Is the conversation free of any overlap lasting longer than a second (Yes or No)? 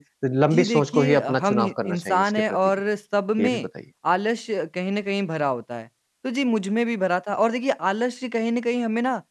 No